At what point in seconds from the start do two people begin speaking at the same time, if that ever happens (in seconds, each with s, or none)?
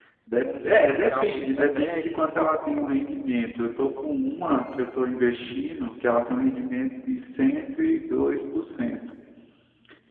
0.6 s